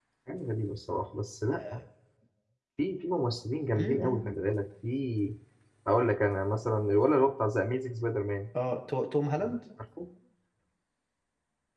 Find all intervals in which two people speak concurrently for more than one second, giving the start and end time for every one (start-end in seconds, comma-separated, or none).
none